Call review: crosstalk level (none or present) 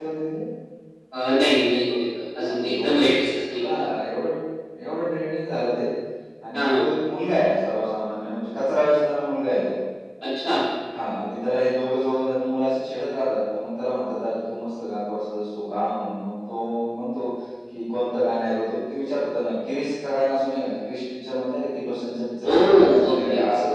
present